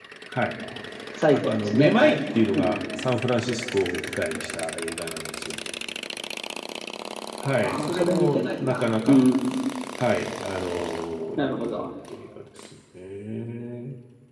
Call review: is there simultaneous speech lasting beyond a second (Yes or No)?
Yes